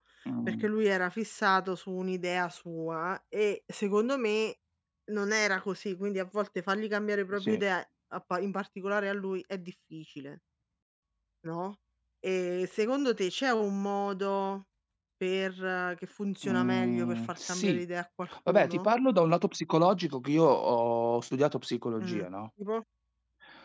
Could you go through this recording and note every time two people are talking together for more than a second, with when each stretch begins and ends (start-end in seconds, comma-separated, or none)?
16.4-17.8